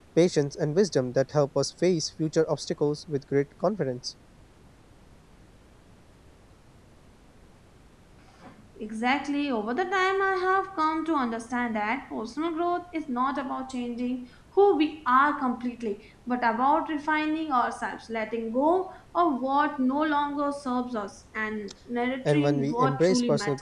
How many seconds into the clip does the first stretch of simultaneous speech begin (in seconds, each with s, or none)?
22.2 s